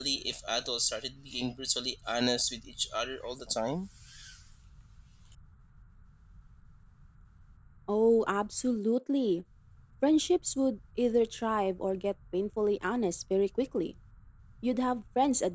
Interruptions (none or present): none